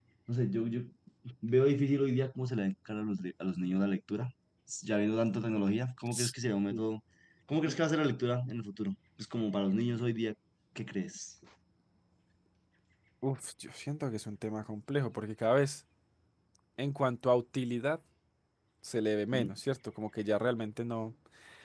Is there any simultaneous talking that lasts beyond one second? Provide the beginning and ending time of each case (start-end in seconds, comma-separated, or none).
none